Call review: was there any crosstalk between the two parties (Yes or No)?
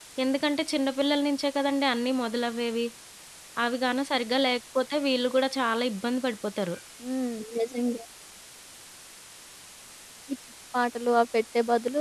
No